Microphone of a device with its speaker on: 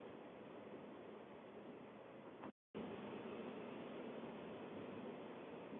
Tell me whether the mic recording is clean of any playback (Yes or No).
Yes